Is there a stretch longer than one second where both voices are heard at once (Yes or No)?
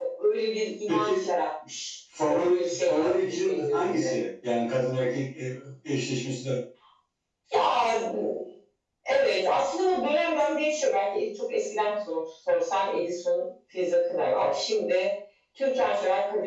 Yes